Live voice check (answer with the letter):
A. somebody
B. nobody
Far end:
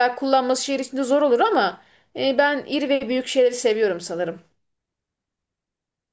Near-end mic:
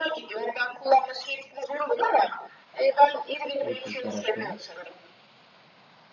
A